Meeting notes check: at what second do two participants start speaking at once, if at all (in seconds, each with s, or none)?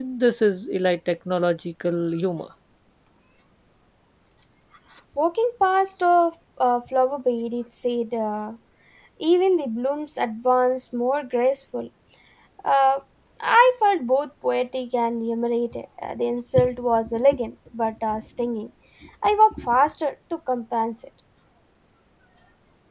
none